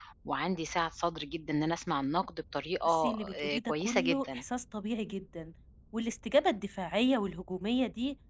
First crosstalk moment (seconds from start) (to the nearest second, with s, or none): 3 s